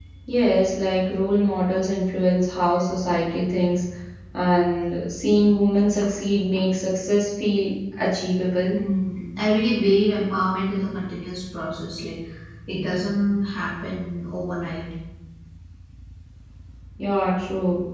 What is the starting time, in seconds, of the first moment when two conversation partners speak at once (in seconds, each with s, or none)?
none